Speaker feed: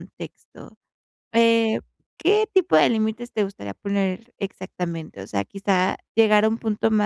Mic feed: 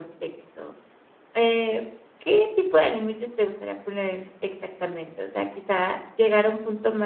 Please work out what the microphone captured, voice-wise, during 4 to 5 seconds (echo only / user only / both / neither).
echo only